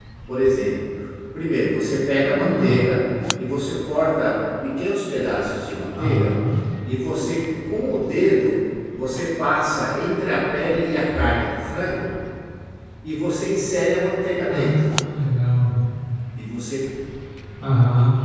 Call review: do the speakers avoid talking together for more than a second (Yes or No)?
Yes